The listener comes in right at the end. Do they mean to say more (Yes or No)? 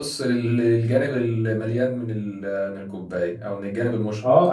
Yes